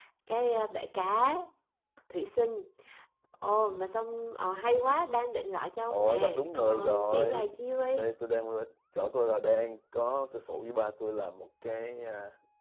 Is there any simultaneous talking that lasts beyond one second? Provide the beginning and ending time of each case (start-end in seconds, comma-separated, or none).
5.9-7.5